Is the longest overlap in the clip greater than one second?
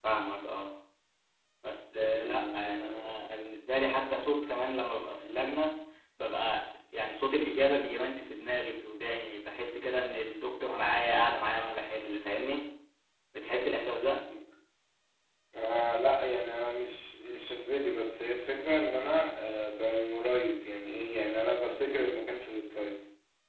Yes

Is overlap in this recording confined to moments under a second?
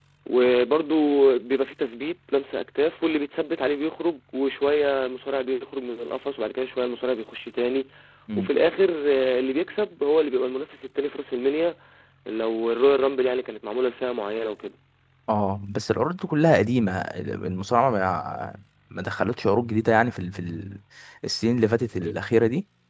Yes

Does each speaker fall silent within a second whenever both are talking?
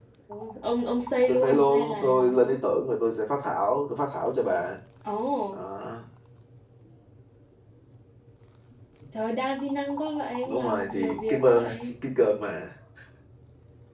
No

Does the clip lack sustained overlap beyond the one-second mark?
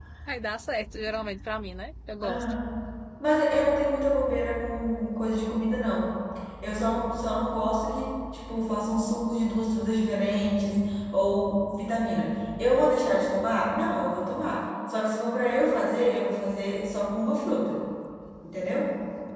Yes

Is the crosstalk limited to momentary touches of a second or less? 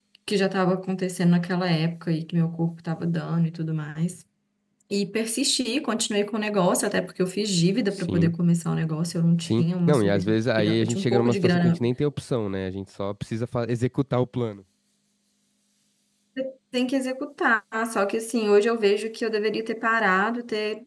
No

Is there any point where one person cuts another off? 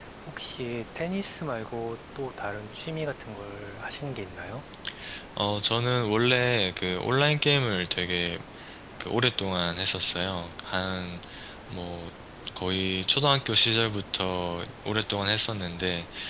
No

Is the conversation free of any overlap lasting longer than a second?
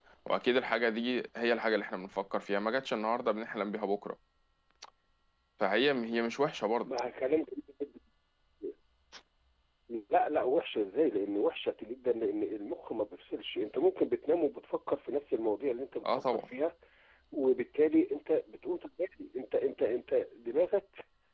Yes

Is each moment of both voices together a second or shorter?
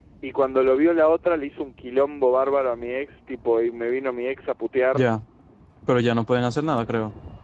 Yes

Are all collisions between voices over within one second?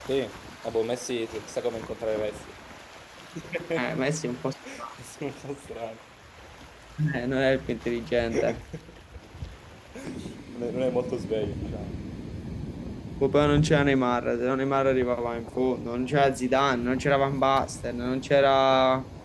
Yes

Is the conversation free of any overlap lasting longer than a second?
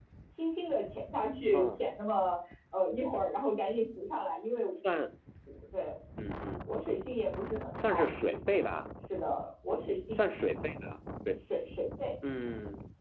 Yes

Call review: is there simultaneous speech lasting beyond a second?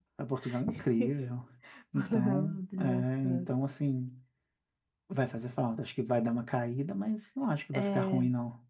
Yes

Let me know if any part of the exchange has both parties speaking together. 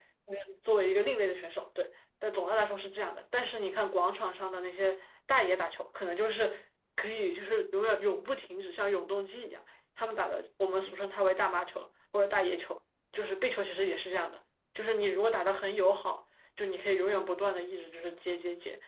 No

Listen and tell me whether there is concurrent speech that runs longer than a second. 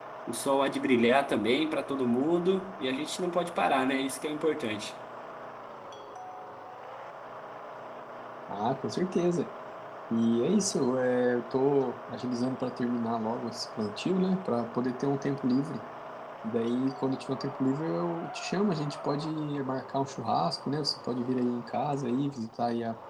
No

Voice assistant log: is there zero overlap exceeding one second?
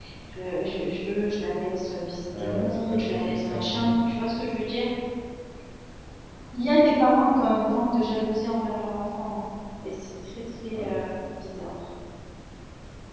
No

